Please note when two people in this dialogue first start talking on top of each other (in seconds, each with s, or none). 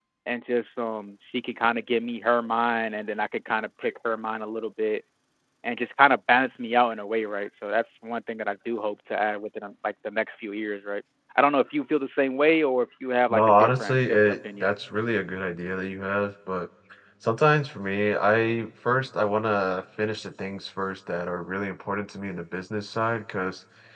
13.3 s